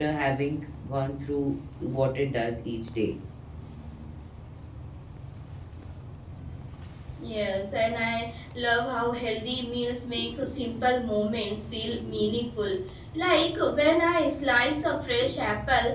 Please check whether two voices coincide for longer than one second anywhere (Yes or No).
No